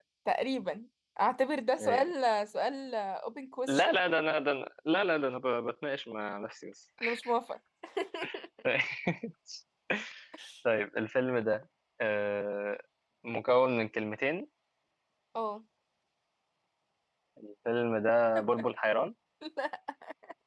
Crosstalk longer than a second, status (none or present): none